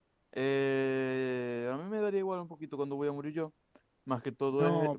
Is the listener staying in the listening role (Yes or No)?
No